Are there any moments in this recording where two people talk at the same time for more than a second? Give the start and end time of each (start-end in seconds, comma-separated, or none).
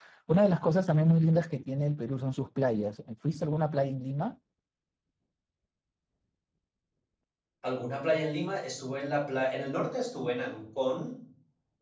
none